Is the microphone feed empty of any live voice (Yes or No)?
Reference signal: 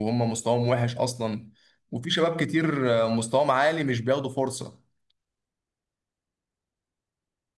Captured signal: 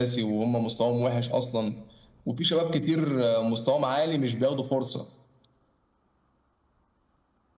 Yes